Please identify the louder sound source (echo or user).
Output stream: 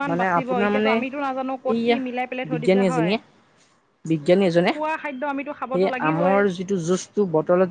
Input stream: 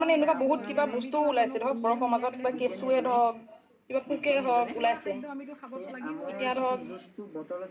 user